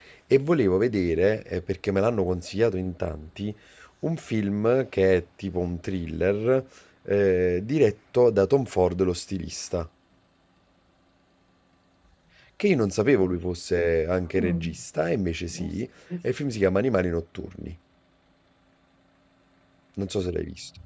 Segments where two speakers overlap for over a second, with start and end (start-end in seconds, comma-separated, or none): none